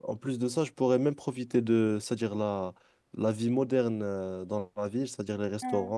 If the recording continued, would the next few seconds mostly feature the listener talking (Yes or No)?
No